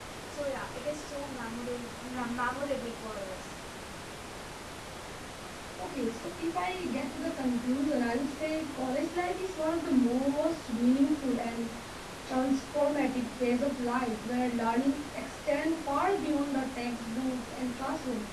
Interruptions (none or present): none